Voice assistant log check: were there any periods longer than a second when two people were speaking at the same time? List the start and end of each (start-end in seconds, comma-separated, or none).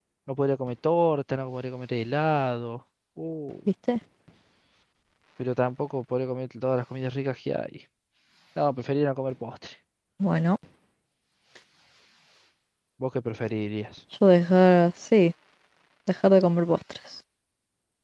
none